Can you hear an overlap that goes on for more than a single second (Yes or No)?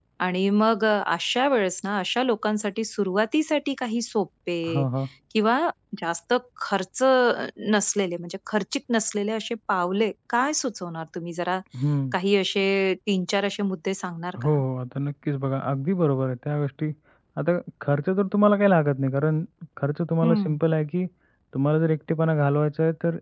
No